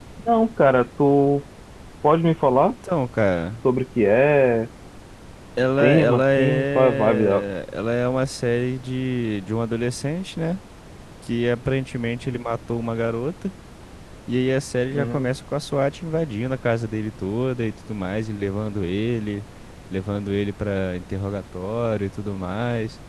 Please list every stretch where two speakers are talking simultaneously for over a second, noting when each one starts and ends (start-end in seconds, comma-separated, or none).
5.8-7.4